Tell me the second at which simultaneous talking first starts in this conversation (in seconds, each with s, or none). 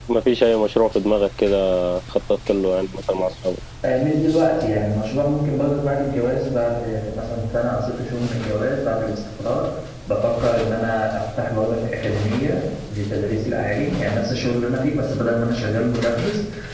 none